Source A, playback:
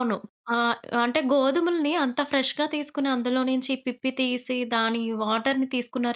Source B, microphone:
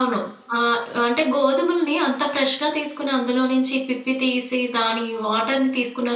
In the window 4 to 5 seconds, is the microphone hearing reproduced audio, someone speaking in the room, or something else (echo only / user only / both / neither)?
echo only